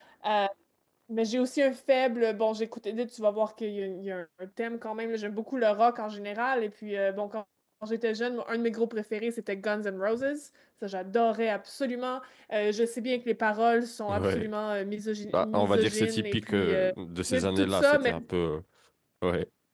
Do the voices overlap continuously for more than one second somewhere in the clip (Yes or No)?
Yes